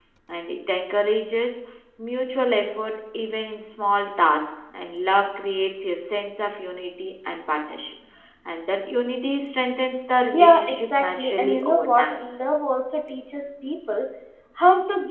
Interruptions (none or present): present